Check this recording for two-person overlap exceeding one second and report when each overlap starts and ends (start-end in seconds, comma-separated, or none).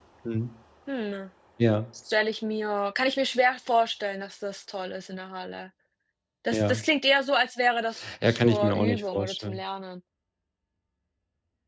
8.2-9.6